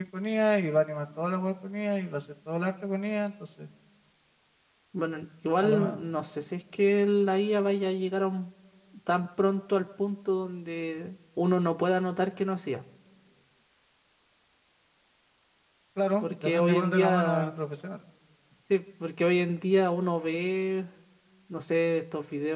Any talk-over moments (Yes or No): Yes